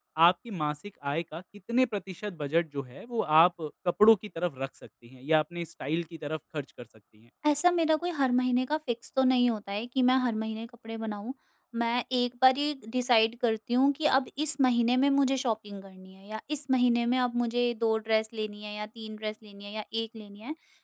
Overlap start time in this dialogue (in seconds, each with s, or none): none